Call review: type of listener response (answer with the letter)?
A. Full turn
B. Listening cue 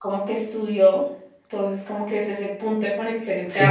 A